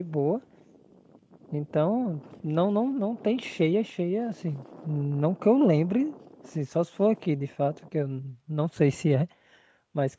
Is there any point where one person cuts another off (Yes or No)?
No